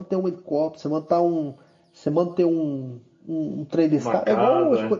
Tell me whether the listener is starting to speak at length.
No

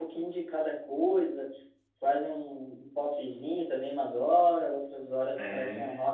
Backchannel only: Yes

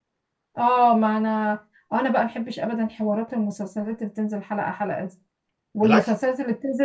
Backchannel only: Yes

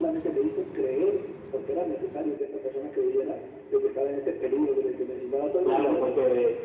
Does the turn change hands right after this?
Yes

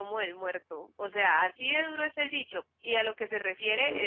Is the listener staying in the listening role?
Yes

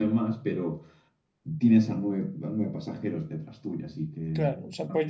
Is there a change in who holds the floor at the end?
Yes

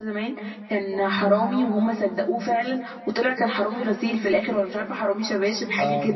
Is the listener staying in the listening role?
No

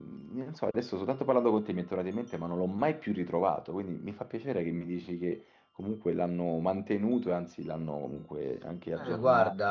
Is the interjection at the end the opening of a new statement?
Yes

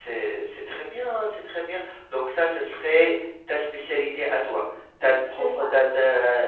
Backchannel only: Yes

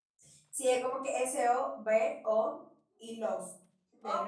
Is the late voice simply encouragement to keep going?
No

